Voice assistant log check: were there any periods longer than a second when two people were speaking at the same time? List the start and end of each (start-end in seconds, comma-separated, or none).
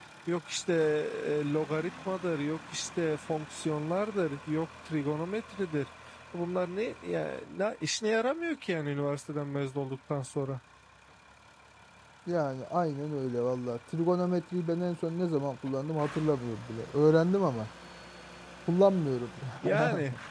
none